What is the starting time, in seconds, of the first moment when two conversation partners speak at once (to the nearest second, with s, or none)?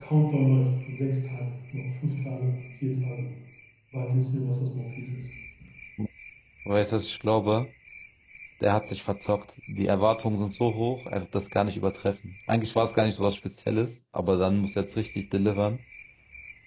none